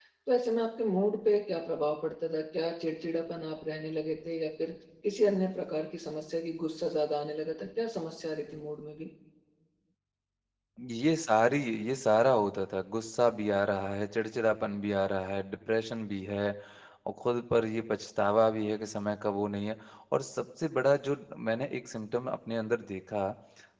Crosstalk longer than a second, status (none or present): none